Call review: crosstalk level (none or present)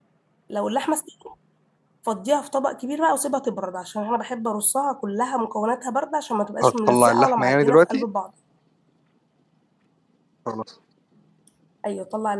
present